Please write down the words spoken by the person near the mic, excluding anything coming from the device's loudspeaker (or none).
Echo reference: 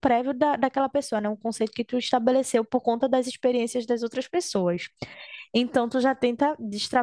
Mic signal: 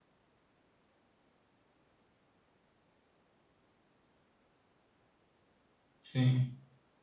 Sim.